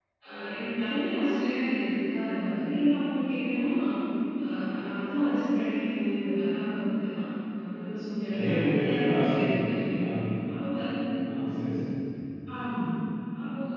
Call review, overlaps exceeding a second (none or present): present